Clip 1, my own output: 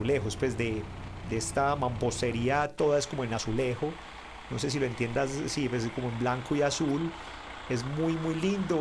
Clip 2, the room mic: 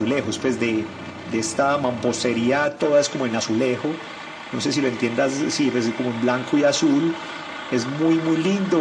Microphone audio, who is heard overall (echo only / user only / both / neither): echo only